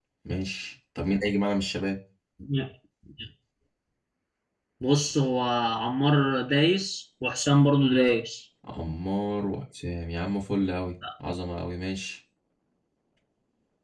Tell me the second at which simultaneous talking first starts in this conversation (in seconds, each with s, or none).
none